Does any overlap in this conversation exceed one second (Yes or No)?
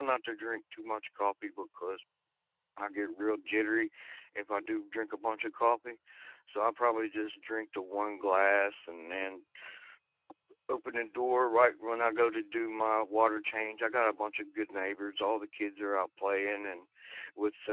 No